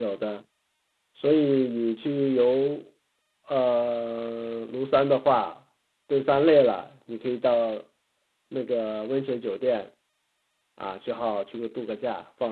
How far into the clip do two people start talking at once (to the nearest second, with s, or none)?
none